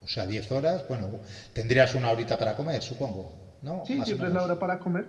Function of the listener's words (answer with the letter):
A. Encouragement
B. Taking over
B